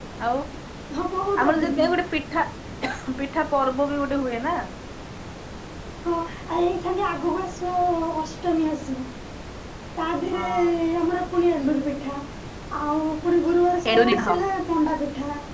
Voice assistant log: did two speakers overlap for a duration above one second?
No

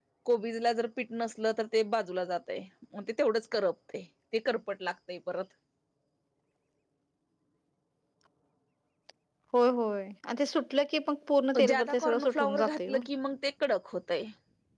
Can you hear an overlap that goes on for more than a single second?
Yes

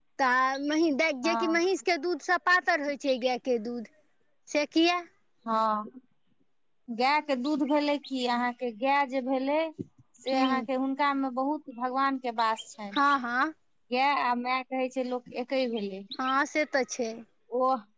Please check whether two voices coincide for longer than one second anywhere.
No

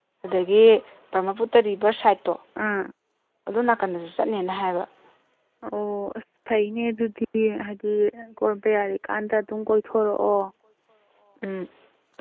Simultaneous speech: No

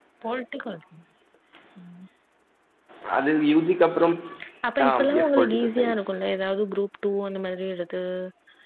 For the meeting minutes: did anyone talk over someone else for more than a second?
Yes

